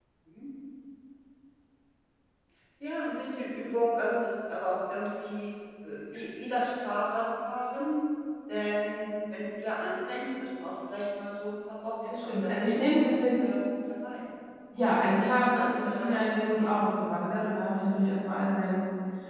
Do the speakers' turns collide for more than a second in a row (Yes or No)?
Yes